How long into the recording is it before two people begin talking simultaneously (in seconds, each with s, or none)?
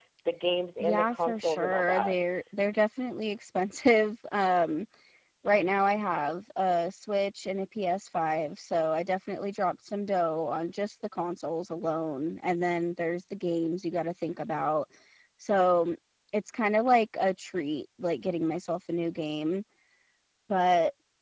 0.8 s